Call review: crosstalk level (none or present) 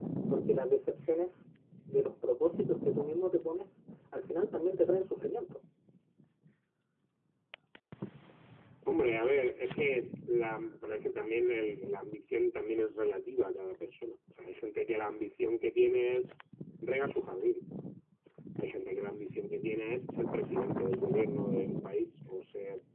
none